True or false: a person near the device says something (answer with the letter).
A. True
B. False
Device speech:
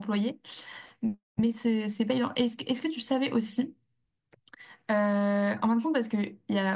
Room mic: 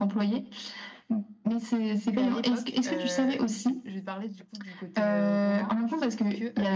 A